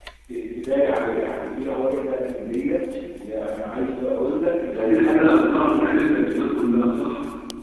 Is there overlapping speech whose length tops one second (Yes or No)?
Yes